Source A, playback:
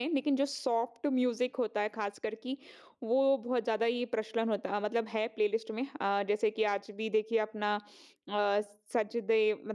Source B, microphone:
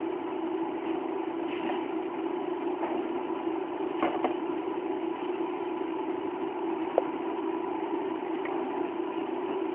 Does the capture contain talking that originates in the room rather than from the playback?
No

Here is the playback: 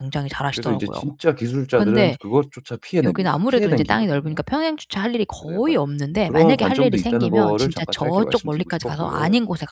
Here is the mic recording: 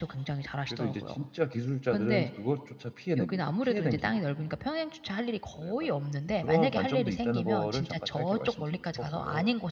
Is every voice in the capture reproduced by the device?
Yes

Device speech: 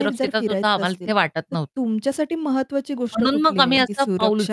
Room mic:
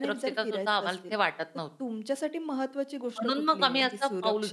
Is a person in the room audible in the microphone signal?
No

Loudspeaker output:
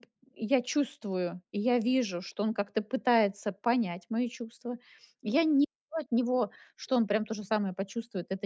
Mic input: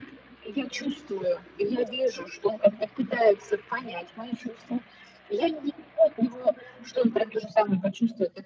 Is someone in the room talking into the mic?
No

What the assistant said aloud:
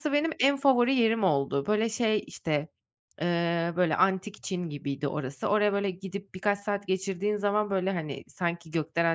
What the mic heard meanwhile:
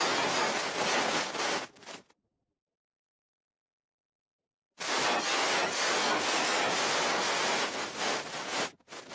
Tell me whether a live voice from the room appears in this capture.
No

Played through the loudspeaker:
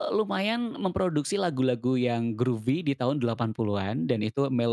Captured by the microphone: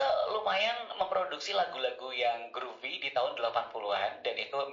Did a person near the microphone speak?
No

